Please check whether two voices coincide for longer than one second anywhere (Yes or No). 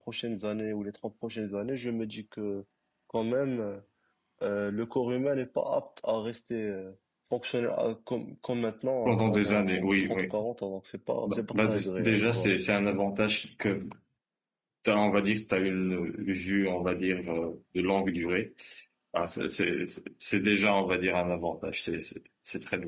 Yes